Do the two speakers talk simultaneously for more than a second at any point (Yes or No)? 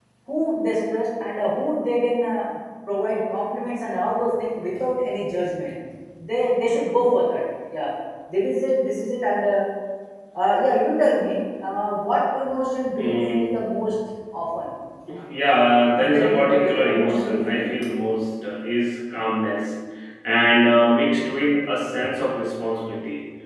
Yes